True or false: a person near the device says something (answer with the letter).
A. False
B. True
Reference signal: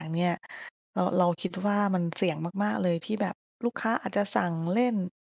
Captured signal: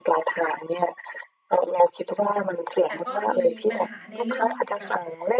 B